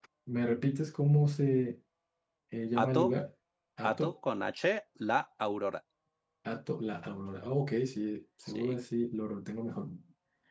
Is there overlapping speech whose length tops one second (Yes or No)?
No